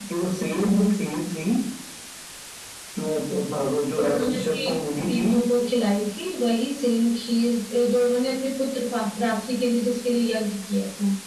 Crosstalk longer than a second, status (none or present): present